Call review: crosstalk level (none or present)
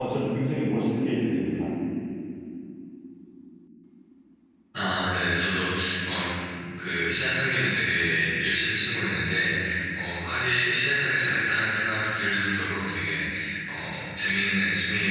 none